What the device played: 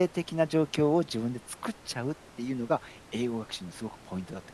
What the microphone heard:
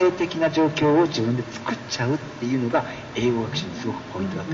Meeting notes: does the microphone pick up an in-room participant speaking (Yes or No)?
Yes